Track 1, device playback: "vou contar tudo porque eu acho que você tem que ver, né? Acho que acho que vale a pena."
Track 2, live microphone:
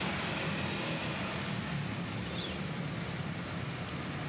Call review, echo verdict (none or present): none